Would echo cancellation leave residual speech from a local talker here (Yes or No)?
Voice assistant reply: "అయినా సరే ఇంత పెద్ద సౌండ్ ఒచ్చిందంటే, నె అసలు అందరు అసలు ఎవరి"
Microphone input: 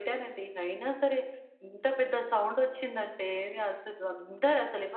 No